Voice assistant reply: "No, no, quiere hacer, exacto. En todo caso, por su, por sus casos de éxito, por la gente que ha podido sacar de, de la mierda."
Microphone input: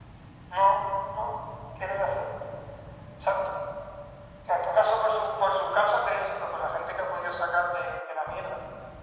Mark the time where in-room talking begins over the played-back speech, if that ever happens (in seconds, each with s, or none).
none